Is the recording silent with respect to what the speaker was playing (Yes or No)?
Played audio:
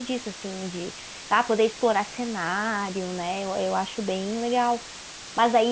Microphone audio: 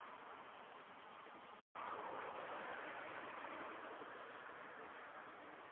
Yes